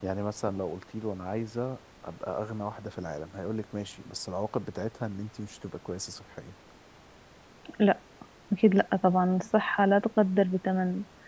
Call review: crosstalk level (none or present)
none